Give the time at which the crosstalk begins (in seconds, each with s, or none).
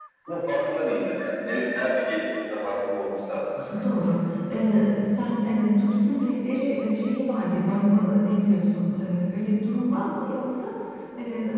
none